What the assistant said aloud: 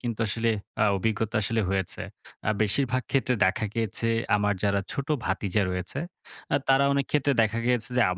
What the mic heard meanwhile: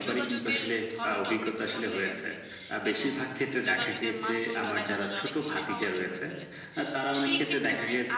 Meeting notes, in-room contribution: present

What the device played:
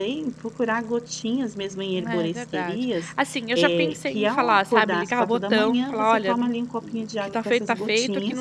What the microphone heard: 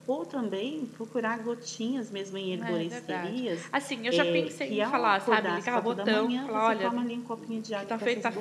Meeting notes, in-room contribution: none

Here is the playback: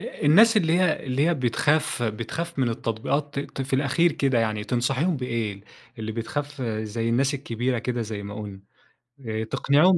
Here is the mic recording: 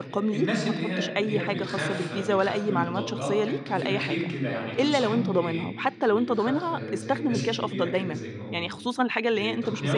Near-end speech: present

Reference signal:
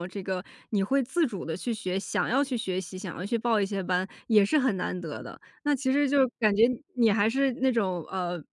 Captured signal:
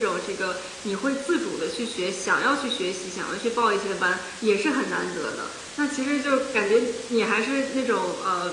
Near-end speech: none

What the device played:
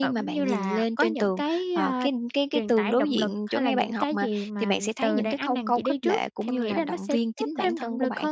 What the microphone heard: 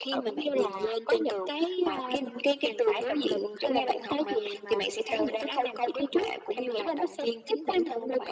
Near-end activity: none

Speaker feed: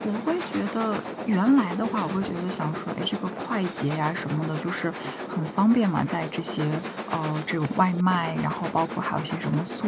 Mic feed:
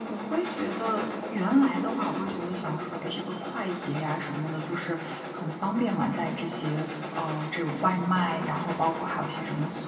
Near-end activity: none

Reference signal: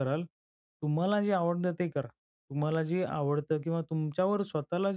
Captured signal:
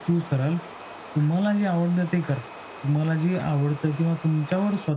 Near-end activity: none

